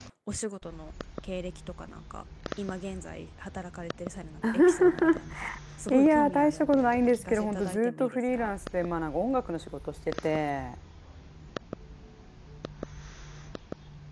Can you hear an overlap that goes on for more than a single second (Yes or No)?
Yes